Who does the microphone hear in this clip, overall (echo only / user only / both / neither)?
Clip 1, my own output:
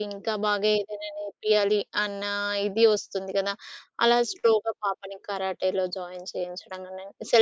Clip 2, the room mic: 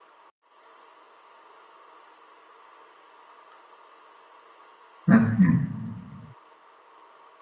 user only